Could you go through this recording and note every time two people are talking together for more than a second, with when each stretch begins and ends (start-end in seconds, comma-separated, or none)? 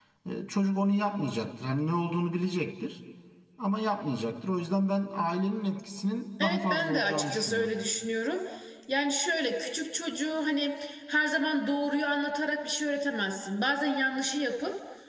6.4-7.7